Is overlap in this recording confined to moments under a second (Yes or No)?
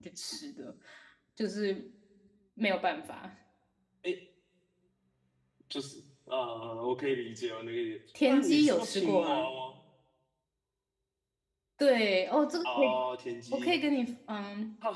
No